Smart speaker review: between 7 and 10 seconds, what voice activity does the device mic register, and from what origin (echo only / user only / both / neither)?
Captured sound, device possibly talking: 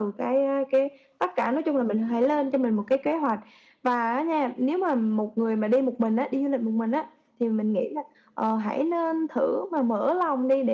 echo only